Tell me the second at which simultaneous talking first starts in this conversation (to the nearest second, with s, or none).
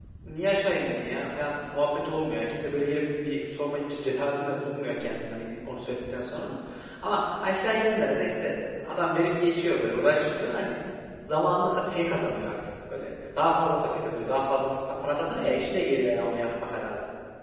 none